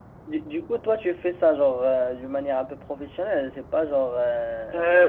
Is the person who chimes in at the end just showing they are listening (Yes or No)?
No